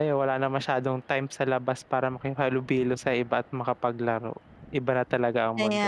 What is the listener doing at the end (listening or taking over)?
taking over